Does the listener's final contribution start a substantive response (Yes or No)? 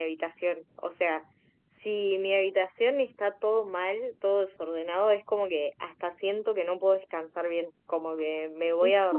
No